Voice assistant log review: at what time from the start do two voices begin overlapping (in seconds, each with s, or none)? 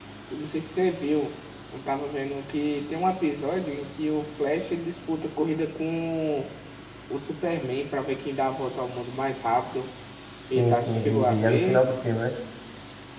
10.6 s